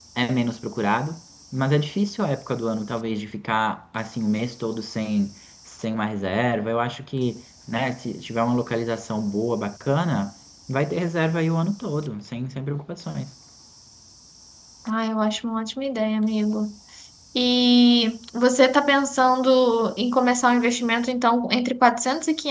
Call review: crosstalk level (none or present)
none